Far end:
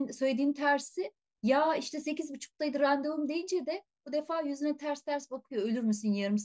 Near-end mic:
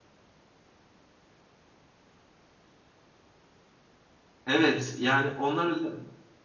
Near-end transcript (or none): Evet yani onlar özel.